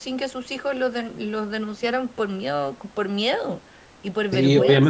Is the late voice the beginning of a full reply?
Yes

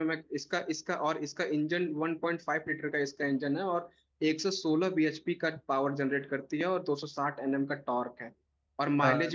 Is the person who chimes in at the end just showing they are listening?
Yes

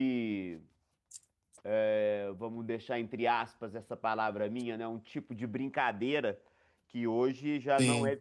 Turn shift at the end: No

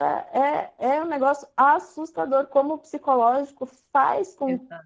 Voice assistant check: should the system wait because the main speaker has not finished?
Yes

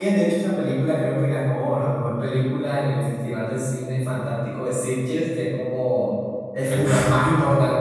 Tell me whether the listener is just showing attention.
Yes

